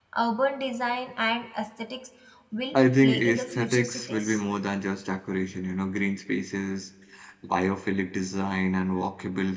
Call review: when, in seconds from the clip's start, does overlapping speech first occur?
2.7 s

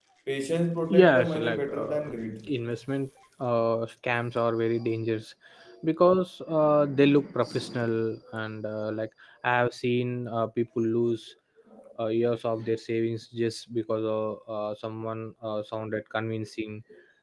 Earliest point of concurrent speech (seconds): 0.9 s

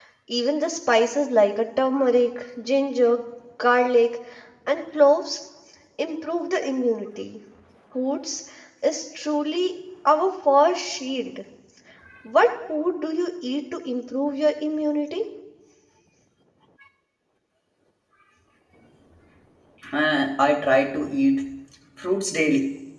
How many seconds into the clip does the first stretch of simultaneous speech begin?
none

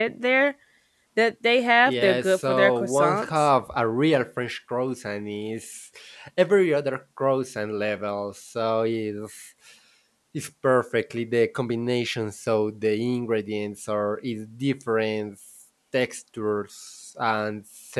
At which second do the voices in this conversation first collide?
1.9 s

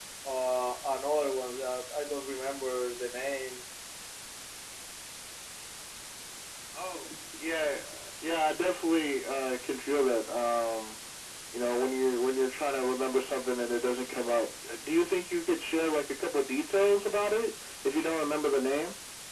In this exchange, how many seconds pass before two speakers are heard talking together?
none

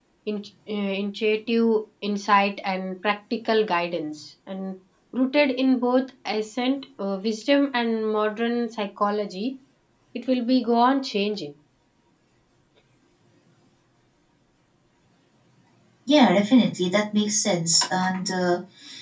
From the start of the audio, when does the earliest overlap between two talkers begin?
none

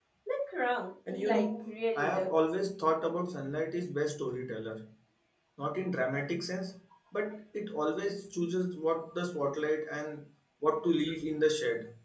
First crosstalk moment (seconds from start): 1.1 s

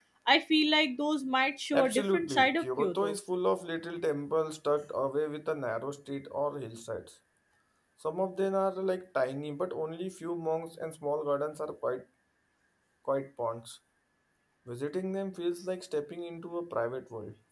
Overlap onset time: 1.7 s

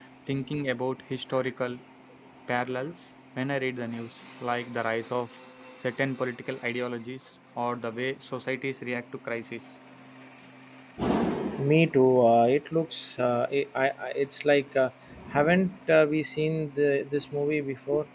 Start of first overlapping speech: none

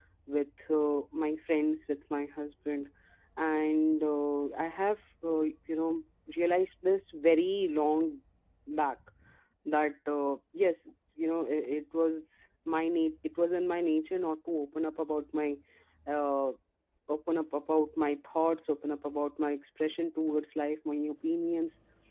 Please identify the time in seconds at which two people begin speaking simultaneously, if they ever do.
none

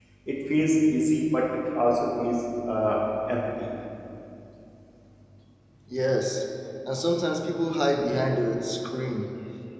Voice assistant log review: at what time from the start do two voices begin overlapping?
none

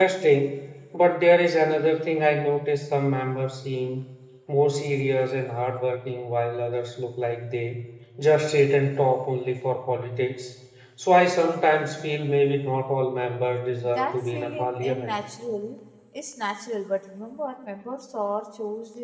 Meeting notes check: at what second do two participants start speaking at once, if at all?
14.0 s

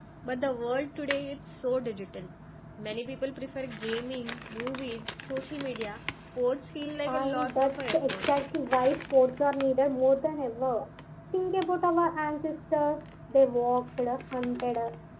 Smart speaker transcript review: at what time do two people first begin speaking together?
7.1 s

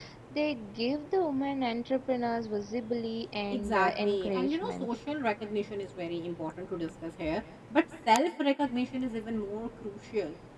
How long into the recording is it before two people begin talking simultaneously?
3.5 s

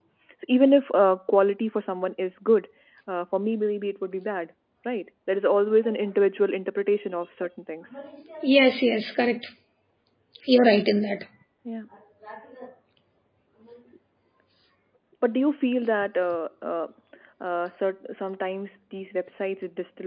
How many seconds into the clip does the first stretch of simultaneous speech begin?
none

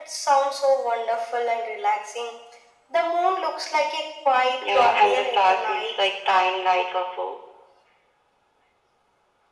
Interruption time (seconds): 4.6 s

